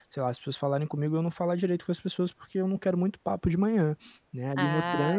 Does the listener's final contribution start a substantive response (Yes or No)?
No